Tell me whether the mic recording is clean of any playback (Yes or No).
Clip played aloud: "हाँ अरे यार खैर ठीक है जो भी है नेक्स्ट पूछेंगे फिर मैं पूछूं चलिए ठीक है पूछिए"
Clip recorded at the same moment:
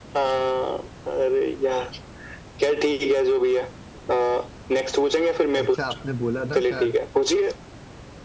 No